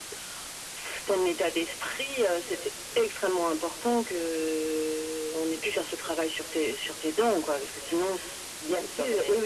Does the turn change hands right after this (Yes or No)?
Yes